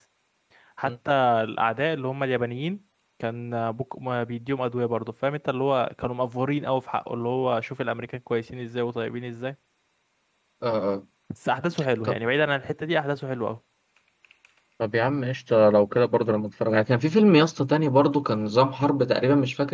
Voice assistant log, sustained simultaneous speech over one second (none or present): none